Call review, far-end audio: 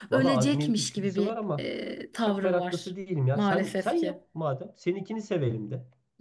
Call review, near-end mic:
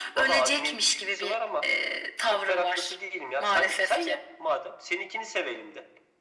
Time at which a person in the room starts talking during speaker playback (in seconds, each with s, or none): none